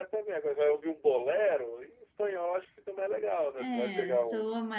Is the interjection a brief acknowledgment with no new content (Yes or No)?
No